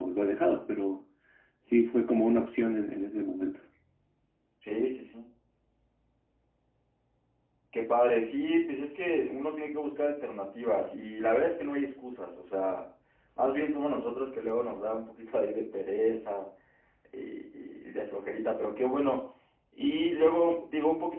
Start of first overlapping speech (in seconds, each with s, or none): none